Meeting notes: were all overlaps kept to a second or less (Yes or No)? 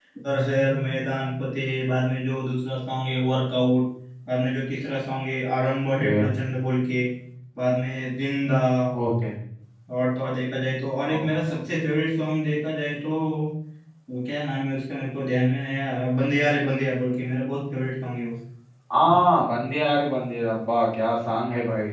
Yes